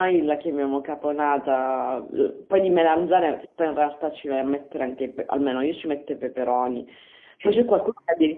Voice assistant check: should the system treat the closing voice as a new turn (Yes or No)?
No